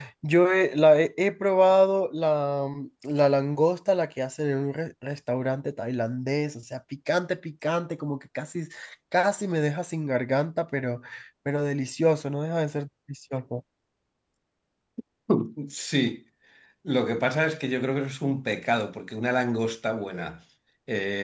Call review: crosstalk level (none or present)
none